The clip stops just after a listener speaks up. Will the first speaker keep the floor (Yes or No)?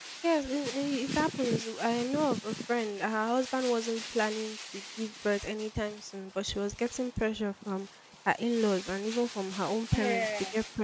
Yes